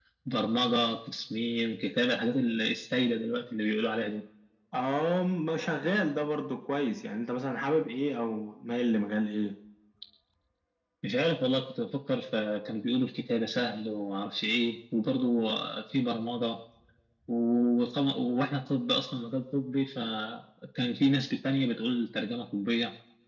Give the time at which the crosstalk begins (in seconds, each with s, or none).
none